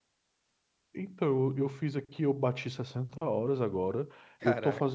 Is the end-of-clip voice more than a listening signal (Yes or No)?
No